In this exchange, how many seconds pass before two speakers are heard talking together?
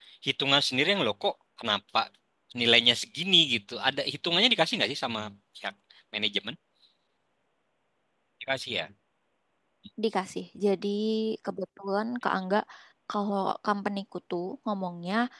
none

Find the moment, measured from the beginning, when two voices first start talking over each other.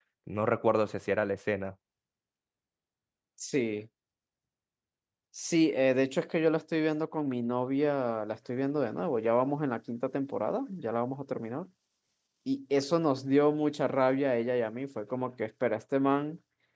none

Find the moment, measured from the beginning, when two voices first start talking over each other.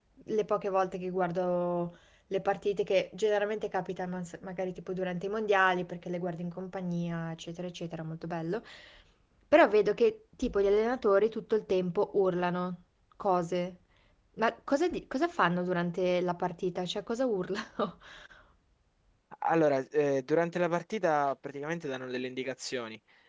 none

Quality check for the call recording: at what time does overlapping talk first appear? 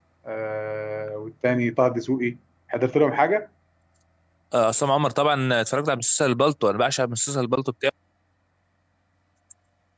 none

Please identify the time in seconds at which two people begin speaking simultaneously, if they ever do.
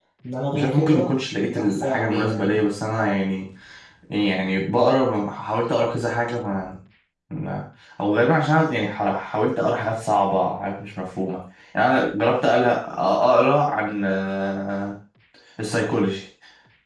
0.5 s

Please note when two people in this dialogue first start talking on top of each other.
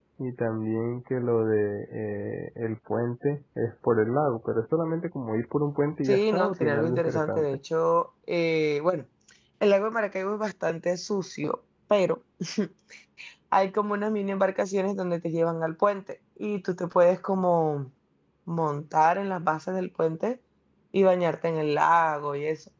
6.0 s

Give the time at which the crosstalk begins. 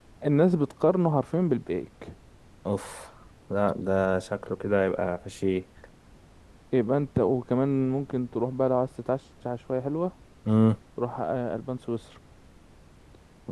none

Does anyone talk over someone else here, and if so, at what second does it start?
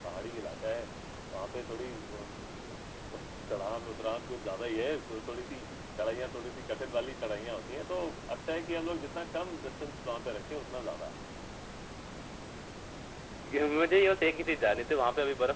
none

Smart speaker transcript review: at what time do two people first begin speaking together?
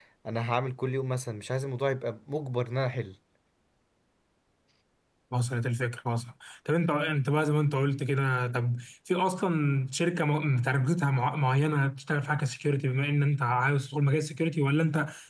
none

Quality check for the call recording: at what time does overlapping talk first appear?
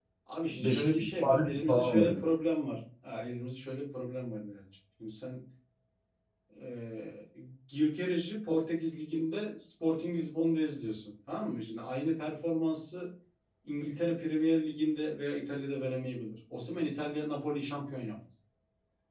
0.6 s

